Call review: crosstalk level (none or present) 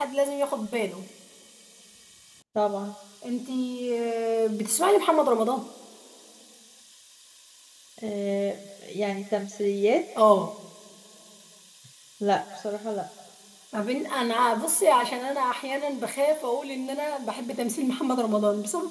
none